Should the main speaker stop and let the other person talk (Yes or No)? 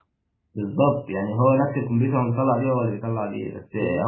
No